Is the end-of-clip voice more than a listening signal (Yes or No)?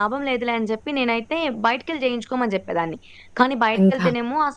No